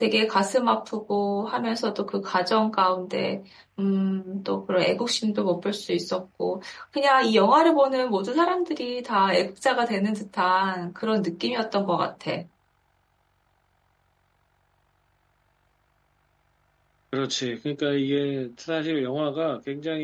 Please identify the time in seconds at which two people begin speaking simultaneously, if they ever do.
none

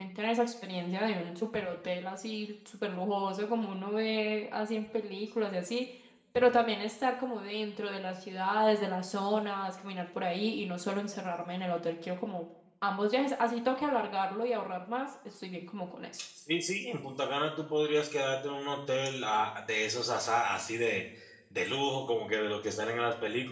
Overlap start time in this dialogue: none

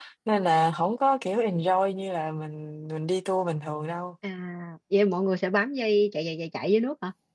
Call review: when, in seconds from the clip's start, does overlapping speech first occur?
none

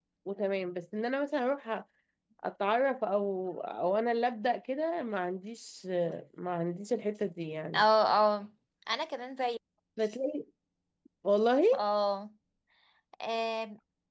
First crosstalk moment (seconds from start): none

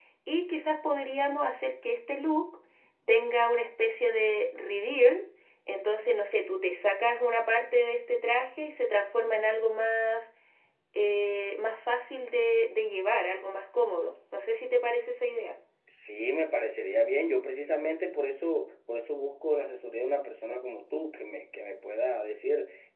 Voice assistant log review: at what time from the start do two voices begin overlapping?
none

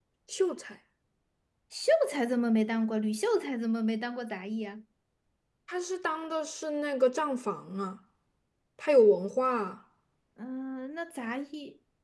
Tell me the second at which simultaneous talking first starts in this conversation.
none

